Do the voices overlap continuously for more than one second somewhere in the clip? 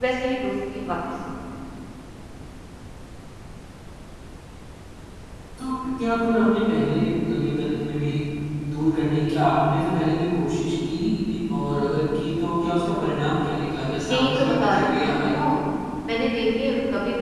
Yes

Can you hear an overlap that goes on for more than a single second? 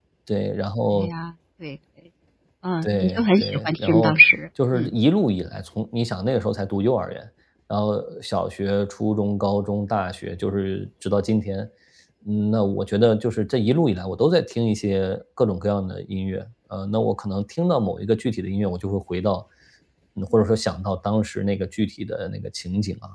Yes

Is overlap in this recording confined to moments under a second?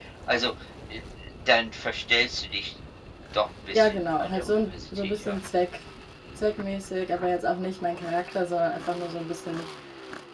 No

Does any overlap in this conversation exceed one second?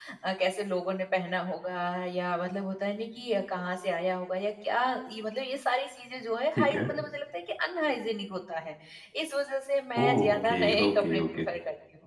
Yes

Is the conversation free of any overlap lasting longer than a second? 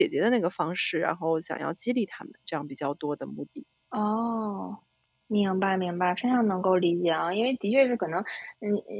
Yes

